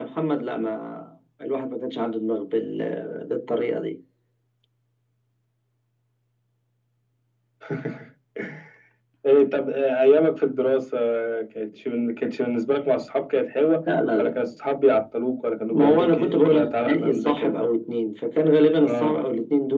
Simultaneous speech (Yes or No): Yes